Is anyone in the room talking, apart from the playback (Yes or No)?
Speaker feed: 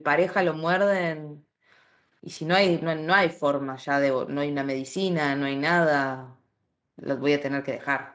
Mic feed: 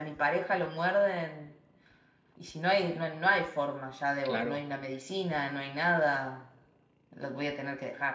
Yes